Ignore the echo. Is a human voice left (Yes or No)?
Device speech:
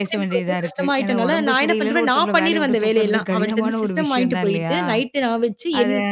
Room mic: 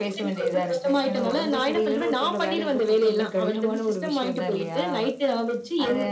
No